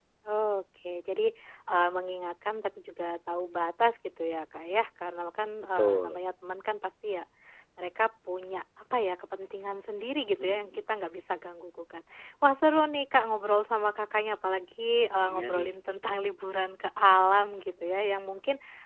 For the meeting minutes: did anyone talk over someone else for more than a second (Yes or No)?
No